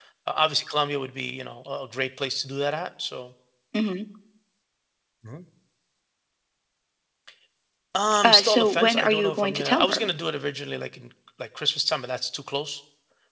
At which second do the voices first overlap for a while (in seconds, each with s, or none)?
8.2 s